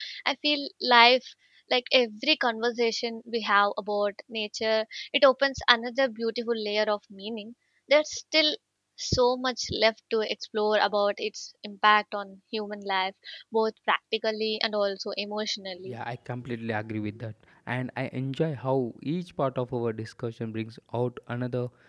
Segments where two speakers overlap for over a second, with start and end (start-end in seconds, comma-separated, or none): none